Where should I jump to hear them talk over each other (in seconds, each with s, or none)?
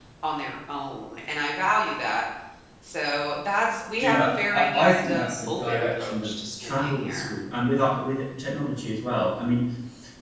4.0 s